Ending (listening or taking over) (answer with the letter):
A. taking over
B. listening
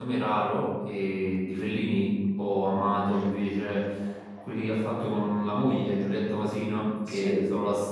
B